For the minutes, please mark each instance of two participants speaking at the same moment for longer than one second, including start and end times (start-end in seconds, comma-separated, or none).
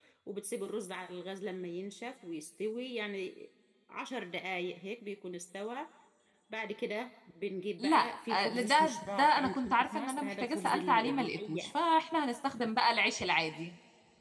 7.8-11.7